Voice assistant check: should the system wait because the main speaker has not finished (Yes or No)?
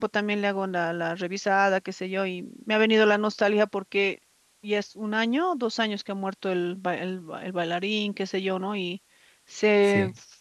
Yes